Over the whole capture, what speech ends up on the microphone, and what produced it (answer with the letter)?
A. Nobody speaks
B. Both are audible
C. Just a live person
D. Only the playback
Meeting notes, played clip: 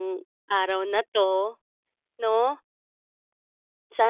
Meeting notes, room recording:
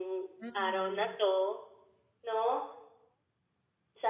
B